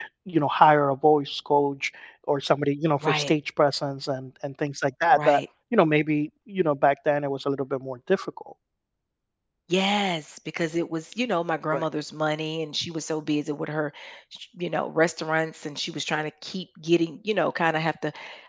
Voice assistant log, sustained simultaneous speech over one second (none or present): none